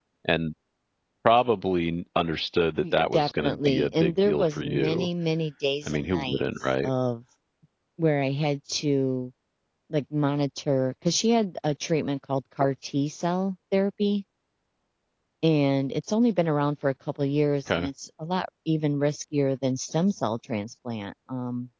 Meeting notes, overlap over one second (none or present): present